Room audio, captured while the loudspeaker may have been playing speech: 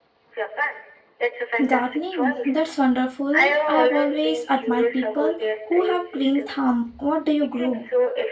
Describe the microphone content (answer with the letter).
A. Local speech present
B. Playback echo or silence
A